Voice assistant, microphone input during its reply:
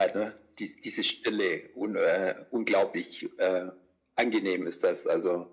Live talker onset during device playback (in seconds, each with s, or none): none